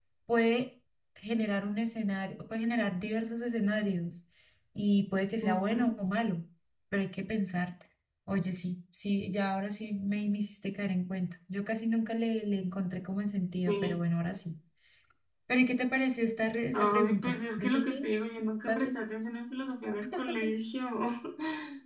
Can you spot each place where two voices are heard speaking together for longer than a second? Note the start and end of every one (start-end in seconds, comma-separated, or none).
16.7-18.0